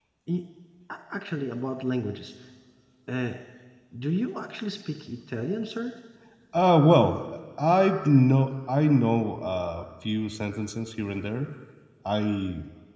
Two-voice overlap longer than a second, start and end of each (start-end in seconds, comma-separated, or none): none